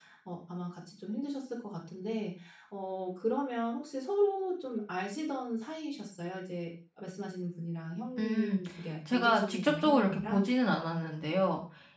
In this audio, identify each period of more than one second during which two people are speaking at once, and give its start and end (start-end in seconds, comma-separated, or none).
9.1-10.4